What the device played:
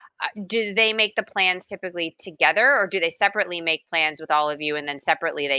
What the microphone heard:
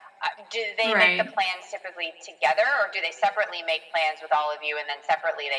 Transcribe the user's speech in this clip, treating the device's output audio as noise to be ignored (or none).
Right.